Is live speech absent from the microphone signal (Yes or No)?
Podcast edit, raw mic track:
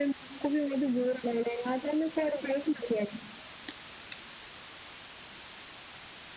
Yes